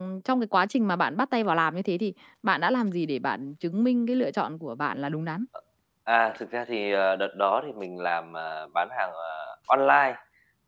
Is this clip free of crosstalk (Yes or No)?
Yes